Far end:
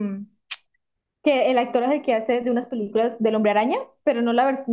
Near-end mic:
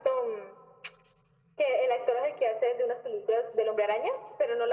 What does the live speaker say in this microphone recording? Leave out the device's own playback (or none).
none